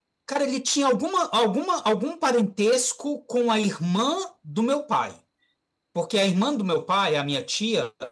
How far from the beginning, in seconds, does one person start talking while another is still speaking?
none

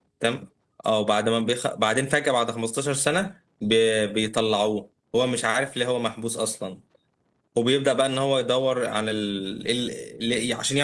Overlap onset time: none

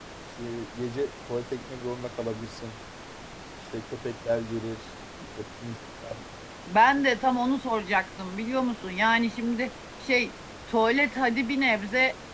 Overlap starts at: none

